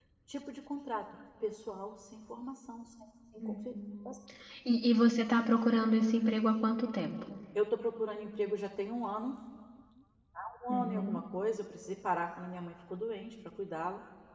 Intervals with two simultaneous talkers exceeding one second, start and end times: none

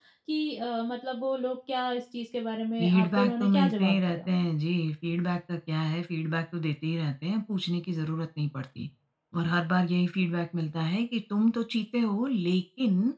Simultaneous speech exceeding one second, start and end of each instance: 2.8-4.3

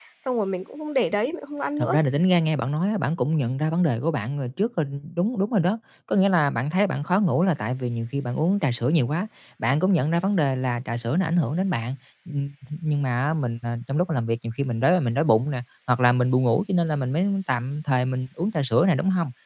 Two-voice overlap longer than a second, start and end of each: none

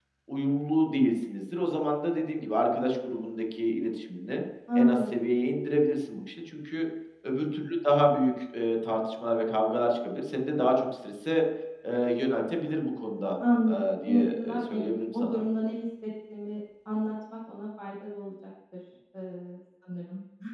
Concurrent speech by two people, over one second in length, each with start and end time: 13.7-15.4

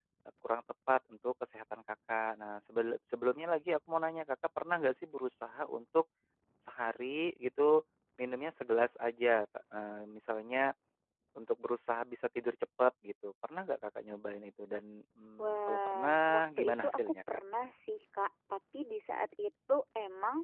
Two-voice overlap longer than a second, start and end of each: 15.4-17.1

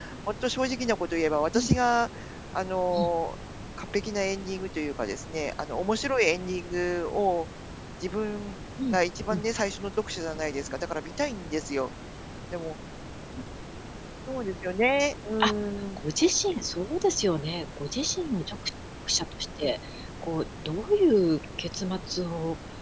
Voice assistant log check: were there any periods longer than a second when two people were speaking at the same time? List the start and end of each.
none

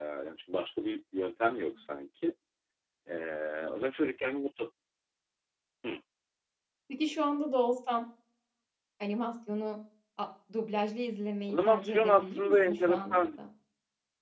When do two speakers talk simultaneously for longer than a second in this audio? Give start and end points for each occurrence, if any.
11.5-13.4

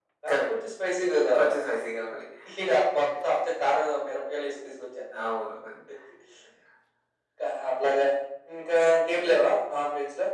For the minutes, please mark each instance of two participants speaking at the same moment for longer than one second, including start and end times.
none

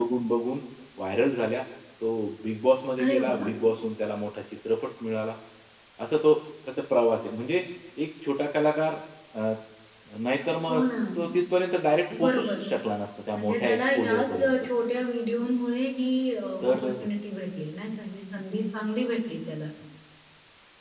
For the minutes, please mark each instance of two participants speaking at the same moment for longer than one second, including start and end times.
13.3-14.6

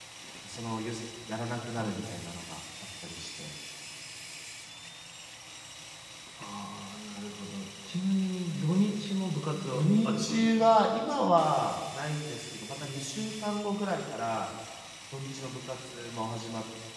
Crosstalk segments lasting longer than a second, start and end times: 9.8-11.0

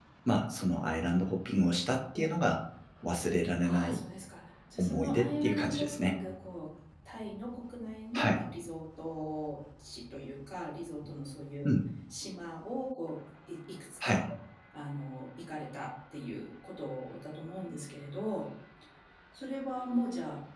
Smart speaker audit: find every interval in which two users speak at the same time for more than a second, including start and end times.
4.8-6.2

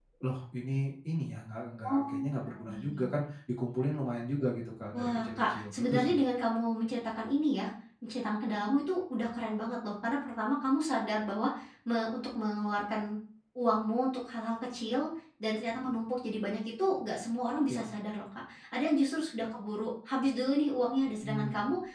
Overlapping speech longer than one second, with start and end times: 1.8-3.0, 4.9-6.2

